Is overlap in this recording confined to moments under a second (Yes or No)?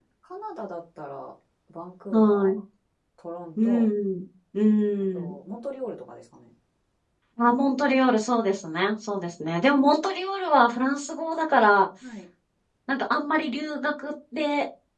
Yes